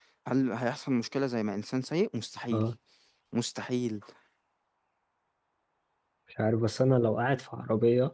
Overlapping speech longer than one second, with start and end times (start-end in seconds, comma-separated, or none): none